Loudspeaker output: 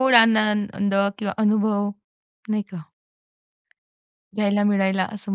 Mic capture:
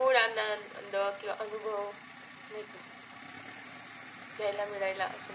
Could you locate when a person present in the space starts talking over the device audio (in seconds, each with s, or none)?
none